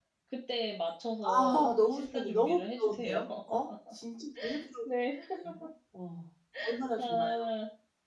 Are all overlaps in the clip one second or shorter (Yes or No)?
No